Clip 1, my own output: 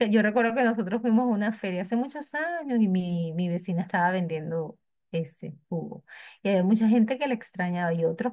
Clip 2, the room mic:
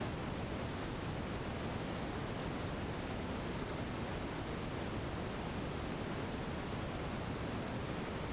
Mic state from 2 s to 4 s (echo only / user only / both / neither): neither